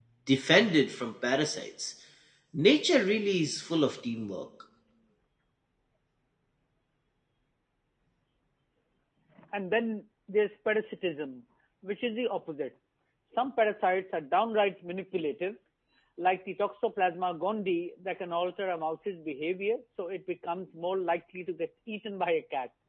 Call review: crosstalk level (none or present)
none